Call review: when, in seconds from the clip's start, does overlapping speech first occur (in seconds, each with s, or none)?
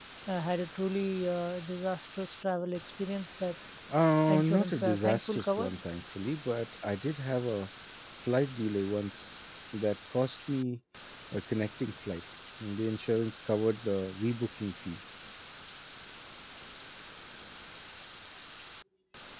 4.3 s